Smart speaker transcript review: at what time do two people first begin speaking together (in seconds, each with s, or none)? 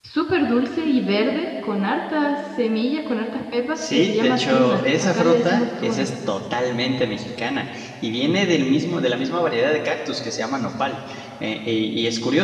3.8 s